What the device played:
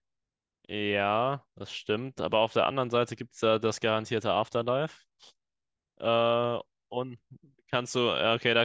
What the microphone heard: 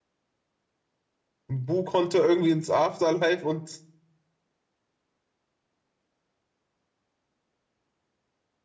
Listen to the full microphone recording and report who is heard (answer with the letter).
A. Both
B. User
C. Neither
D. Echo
B